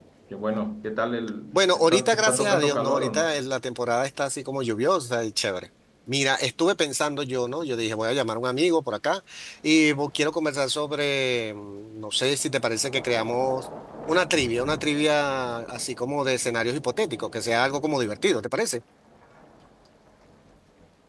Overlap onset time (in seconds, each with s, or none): 1.5 s